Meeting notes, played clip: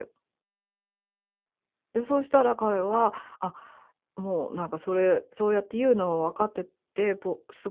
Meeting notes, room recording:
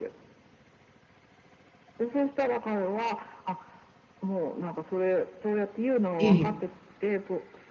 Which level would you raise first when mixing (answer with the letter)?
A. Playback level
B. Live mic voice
A